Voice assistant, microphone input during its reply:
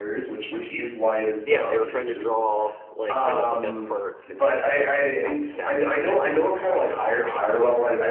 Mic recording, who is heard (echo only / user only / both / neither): both